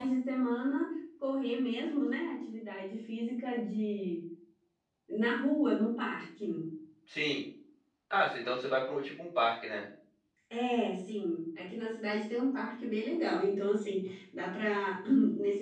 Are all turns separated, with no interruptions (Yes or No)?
Yes